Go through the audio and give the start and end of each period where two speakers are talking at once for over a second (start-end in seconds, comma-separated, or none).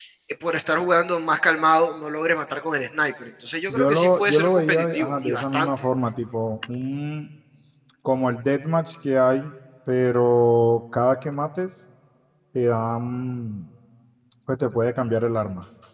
3.7-5.7